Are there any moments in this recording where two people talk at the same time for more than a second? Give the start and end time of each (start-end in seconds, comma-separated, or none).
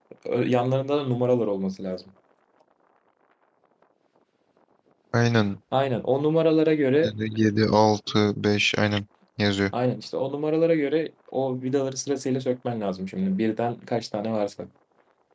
none